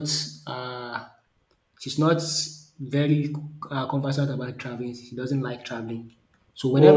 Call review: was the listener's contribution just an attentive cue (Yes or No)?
Yes